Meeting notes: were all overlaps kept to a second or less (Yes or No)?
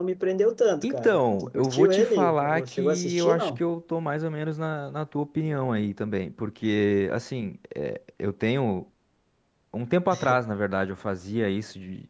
No